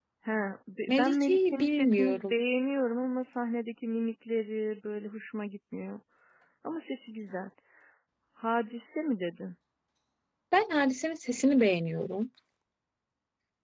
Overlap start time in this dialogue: 1 s

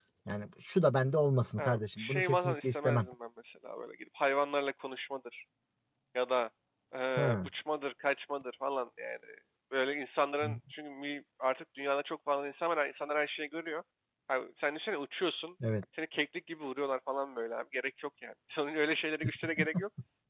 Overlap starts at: 2 s

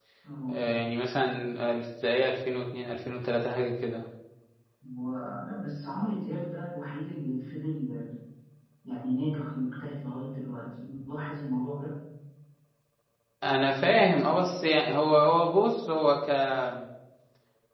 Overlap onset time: none

